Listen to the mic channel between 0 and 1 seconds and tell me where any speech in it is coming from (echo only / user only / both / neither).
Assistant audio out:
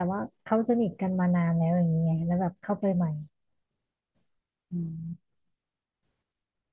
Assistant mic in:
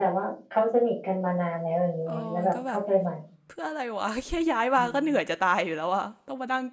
echo only